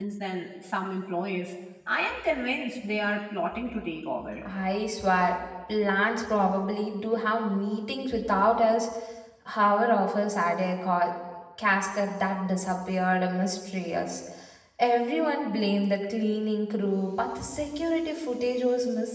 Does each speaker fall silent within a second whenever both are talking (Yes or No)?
Yes